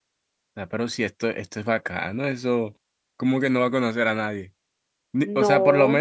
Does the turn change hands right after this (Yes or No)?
No